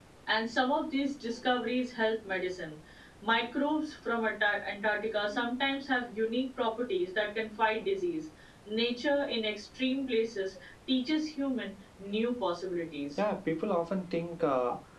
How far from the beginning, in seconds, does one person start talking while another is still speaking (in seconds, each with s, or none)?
none